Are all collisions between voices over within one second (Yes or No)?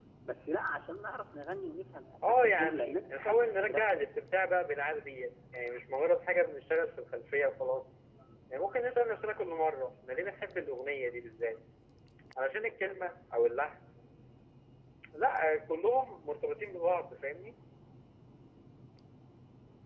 No